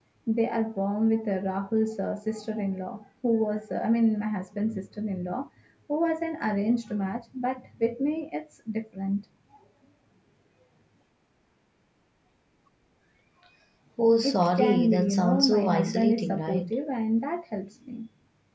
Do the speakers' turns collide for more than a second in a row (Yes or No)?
Yes